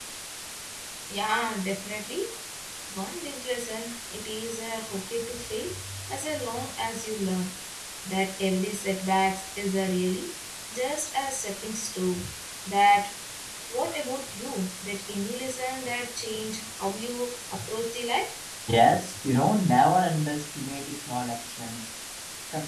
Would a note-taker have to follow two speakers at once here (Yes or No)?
No